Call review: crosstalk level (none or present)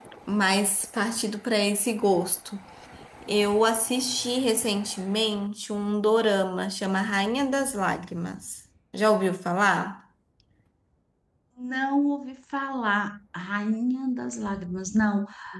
none